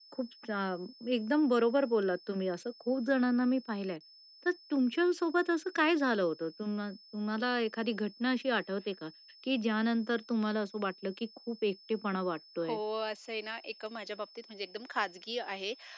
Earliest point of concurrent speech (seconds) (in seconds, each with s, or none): none